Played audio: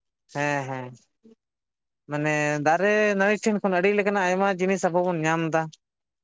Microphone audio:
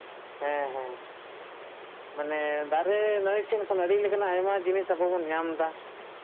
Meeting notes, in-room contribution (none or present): none